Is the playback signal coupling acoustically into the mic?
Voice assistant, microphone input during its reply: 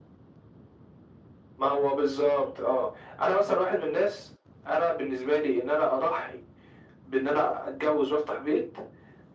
Yes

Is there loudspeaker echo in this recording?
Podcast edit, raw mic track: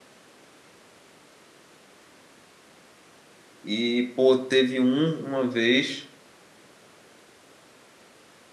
No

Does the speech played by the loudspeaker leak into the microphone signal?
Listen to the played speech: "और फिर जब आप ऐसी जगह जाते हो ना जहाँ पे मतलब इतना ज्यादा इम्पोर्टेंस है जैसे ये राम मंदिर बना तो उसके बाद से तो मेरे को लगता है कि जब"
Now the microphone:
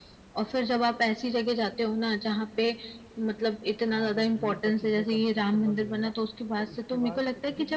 Yes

